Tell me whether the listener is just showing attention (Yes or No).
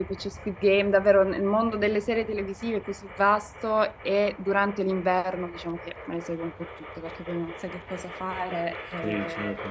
No